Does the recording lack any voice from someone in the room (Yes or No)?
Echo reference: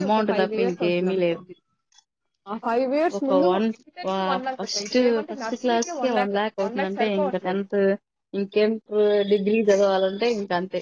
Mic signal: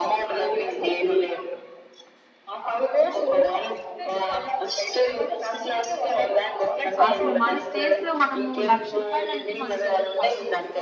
No